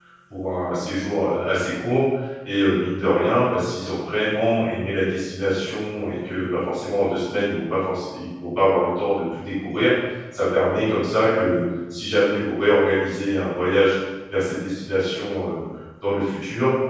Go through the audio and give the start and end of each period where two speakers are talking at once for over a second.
none

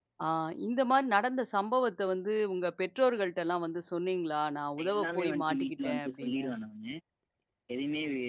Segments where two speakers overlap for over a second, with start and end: 4.8-6.5

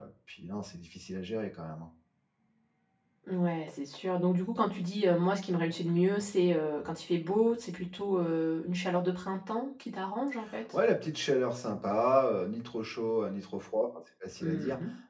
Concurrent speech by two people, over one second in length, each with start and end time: none

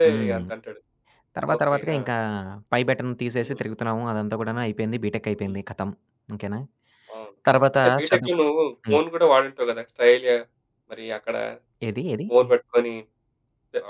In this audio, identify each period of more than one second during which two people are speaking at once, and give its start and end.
none

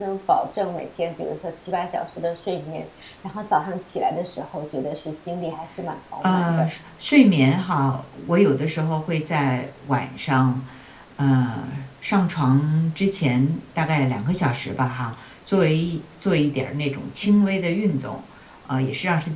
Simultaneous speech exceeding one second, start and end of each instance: none

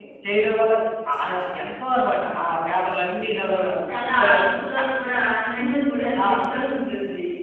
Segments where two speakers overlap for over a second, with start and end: none

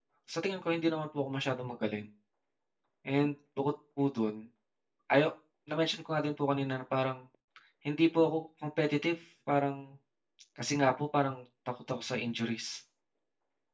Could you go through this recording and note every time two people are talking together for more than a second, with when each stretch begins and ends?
none

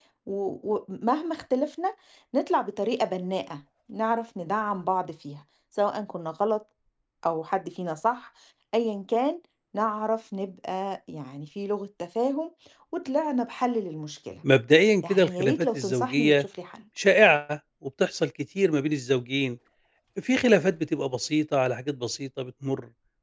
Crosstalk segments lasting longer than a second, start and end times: 15.0-16.4

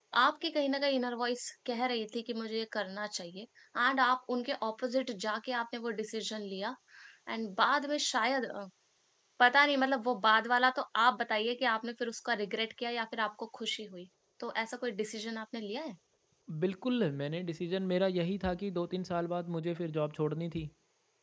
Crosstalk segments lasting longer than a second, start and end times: none

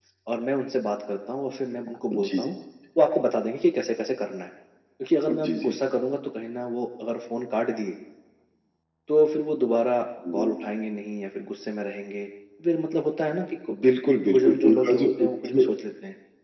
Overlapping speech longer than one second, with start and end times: 14.2-15.7

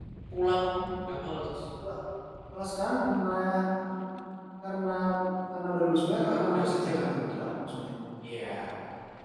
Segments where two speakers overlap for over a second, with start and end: 6.2-7.5

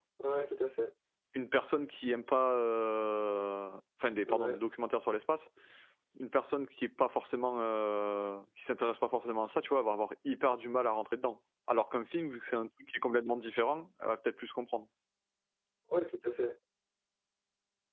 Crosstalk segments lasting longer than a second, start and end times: none

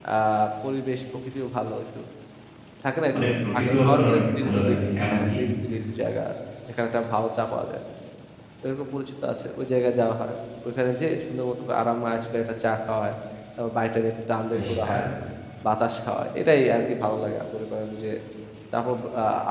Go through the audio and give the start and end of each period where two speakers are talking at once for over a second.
3.1-4.7

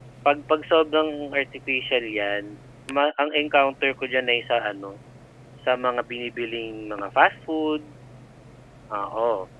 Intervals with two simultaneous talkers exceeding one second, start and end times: none

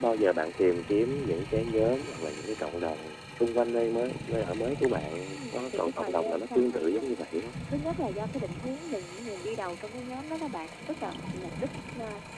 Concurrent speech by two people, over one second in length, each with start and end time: 5.3-7.2

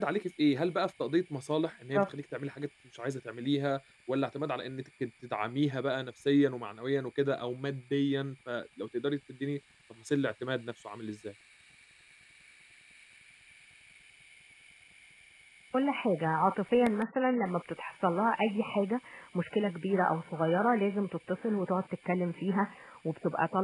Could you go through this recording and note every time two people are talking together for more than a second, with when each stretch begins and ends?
none

